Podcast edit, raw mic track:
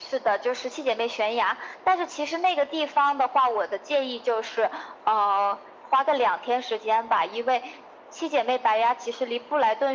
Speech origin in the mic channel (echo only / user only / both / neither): echo only